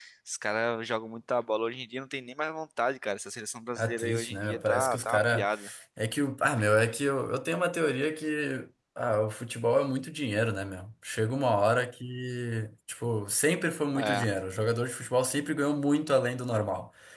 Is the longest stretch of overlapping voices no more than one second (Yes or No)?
No